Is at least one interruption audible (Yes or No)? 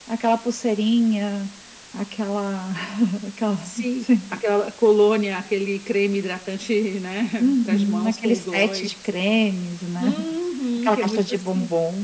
Yes